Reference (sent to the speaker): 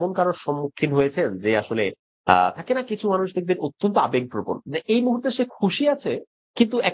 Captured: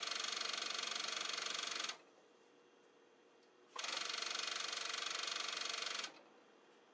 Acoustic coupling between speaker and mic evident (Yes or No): No